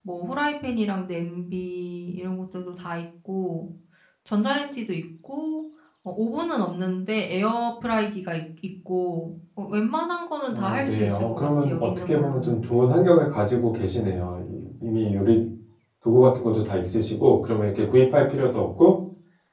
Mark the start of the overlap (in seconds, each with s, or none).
10.5 s